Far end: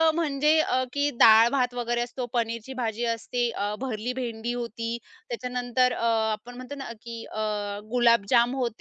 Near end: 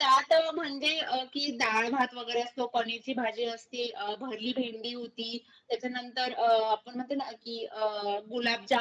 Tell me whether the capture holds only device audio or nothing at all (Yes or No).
Yes